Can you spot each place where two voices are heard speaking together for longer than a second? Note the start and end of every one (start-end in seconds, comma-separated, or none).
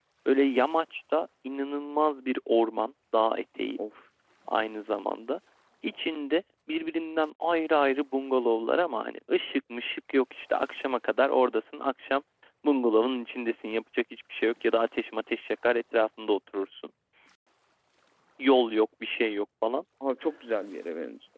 none